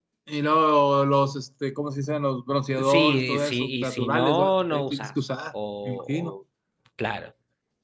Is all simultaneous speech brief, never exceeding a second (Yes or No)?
No